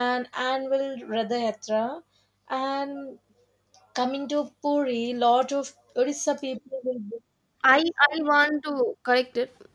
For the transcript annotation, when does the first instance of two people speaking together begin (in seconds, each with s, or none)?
none